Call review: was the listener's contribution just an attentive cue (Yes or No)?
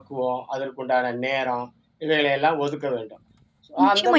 No